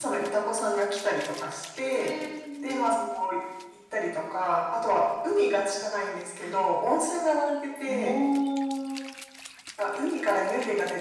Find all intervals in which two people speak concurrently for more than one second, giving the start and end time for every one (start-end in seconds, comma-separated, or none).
none